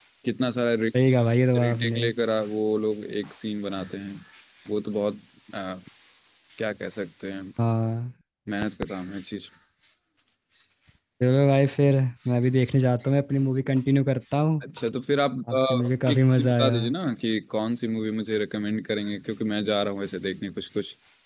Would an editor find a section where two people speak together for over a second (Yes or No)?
Yes